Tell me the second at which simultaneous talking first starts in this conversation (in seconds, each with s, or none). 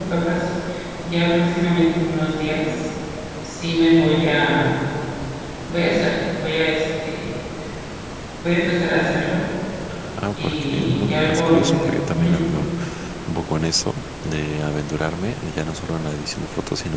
10.4 s